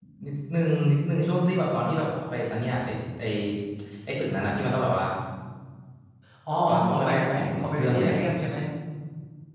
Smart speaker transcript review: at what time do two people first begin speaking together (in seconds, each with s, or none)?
6.7 s